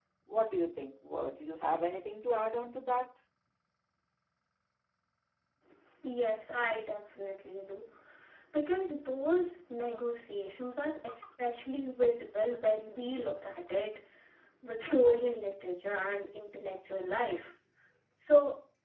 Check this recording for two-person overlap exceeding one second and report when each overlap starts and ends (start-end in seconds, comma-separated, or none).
none